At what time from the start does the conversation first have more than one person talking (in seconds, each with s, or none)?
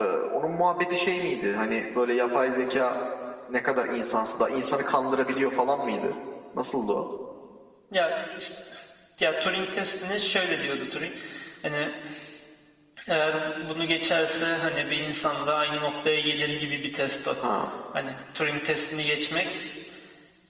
none